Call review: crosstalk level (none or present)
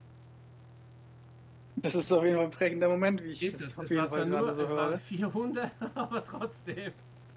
present